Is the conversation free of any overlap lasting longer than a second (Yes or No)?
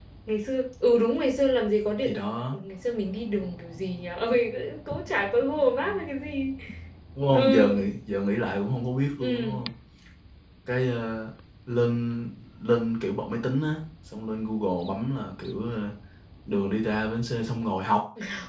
Yes